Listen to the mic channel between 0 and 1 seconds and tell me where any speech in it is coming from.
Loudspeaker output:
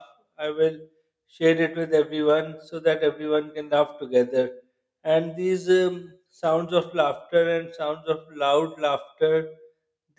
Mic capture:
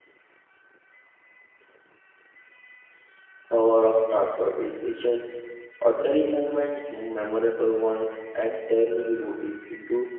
neither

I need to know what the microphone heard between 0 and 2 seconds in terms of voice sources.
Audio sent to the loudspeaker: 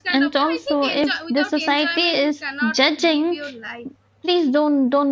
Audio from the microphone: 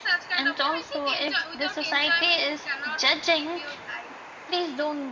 echo only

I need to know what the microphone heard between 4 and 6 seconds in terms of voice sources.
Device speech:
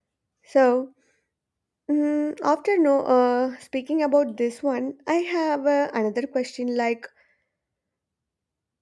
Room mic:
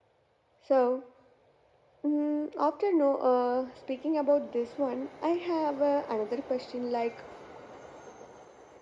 echo only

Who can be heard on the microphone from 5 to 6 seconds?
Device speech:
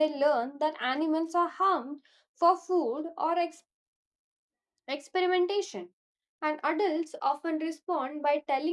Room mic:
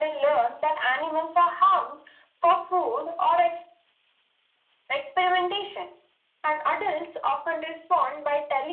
echo only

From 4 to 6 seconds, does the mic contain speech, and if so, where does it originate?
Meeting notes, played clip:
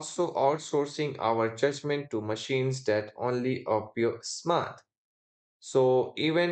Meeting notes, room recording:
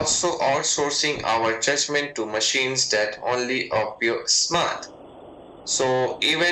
echo only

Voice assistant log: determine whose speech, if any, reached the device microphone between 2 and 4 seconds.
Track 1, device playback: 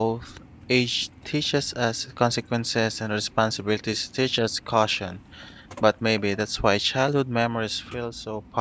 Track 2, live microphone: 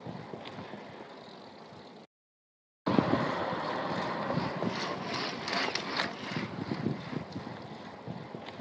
neither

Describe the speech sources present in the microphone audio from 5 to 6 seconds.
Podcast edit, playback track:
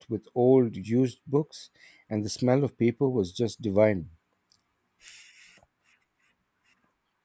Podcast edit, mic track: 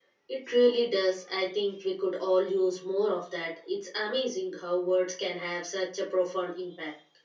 user only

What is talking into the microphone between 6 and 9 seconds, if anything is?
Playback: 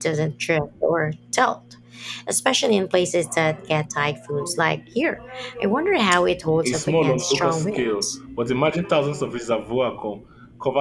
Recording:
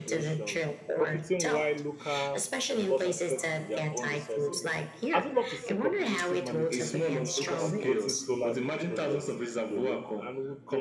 both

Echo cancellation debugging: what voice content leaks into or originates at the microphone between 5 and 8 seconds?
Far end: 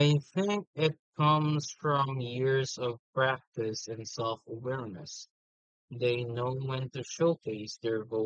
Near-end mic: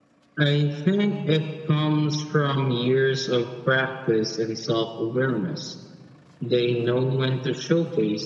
echo only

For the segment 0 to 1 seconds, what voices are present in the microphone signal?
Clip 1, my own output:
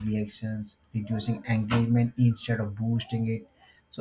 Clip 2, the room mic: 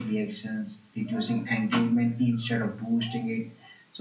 echo only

